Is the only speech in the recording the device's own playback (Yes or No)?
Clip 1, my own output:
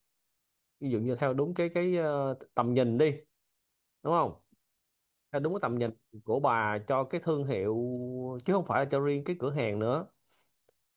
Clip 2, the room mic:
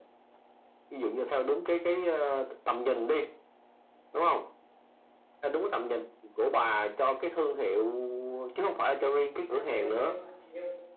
No